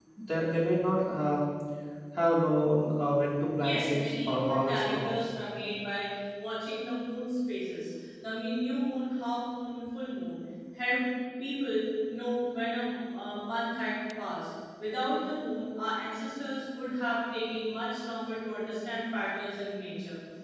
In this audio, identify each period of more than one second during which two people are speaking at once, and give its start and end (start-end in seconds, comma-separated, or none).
3.6-5.3